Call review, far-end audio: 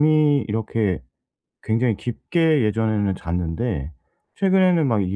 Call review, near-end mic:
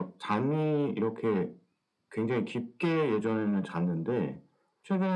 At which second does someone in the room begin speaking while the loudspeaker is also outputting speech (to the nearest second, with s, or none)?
none